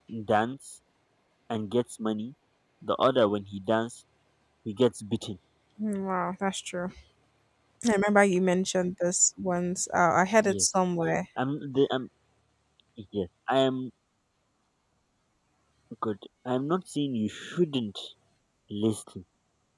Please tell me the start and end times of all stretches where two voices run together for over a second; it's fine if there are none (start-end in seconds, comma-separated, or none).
none